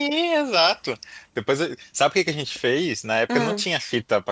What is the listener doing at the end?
listening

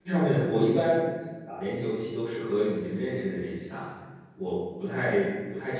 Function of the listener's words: listening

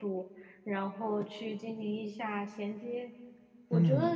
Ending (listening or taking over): listening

